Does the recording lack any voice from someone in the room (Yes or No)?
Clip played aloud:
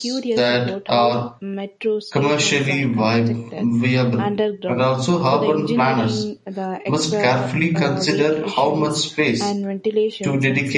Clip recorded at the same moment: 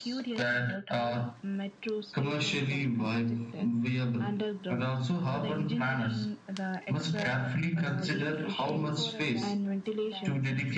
No